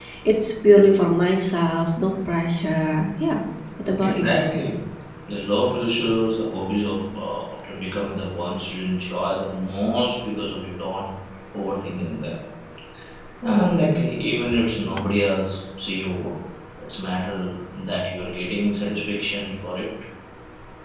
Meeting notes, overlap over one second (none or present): none